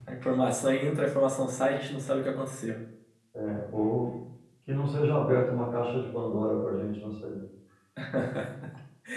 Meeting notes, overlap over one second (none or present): none